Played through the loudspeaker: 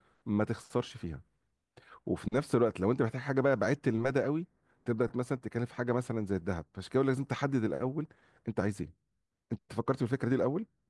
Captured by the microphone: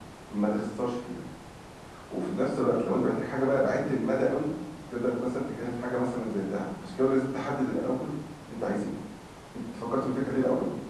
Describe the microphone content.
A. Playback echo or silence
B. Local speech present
A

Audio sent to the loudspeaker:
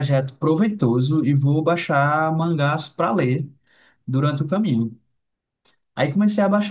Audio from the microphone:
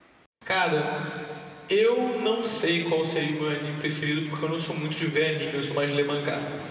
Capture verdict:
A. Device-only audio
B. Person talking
B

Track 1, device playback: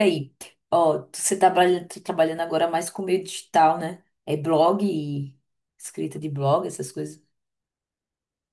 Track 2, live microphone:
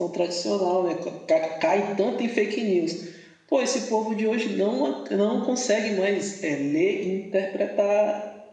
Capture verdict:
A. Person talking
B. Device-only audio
A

